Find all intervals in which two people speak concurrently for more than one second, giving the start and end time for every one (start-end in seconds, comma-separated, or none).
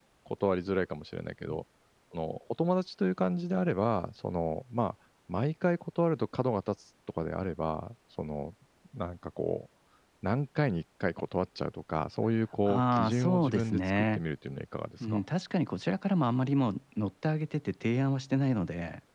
12.7-14.2